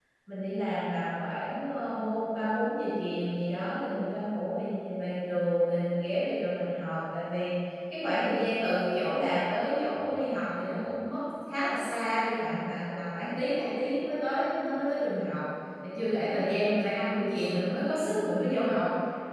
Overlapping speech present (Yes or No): No